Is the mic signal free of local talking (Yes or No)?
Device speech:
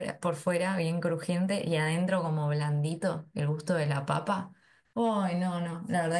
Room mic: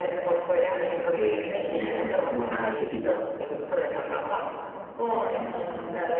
No